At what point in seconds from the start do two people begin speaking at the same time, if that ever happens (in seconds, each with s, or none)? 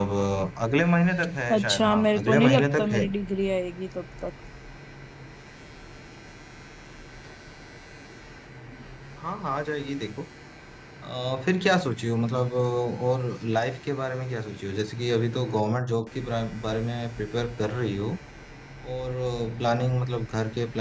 1.5 s